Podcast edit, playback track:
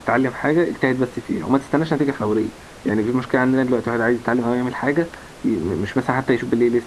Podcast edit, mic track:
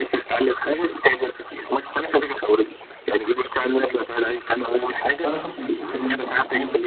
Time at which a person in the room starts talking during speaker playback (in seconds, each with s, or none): 5.2 s